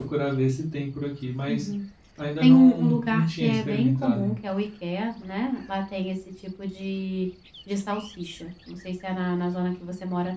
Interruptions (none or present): present